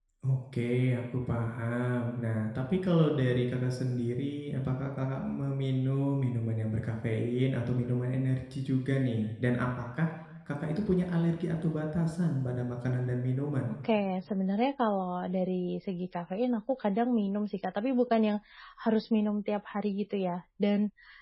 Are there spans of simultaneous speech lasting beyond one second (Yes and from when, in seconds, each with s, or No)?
No